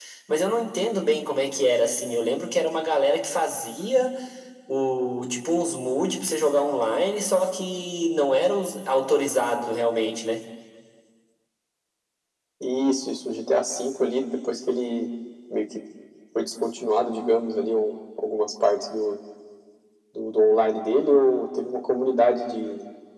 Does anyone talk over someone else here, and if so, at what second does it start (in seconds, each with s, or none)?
none